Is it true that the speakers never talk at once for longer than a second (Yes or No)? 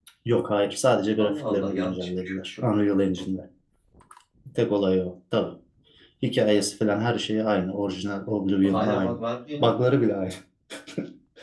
No